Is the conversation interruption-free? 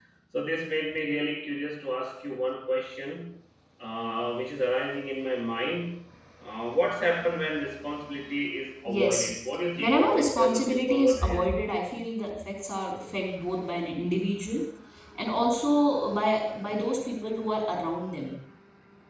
No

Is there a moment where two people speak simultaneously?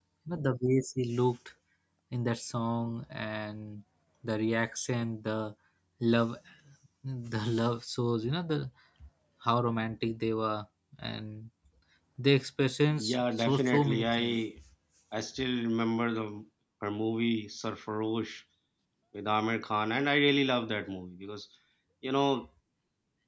Yes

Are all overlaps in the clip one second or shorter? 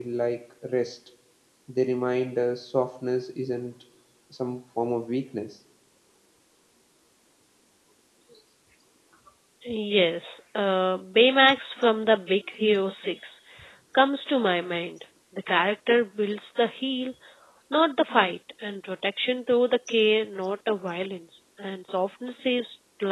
Yes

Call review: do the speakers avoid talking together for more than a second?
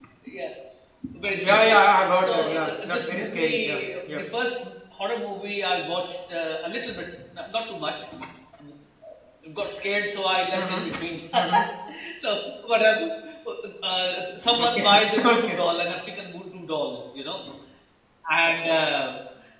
No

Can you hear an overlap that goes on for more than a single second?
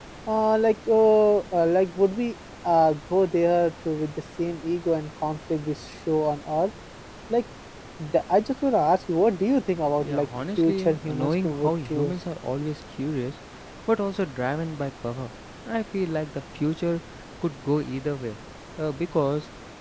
Yes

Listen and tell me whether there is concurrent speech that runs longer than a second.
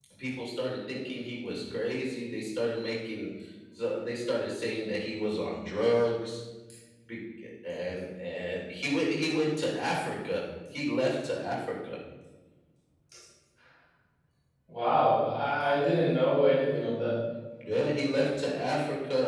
No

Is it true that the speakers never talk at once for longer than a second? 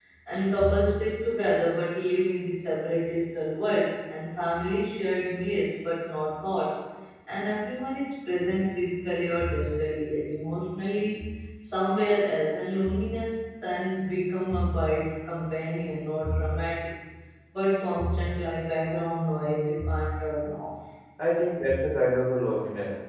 Yes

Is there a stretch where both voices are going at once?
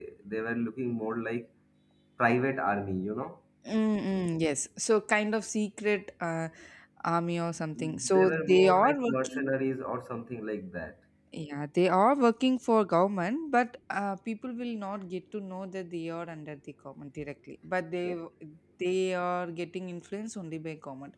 Yes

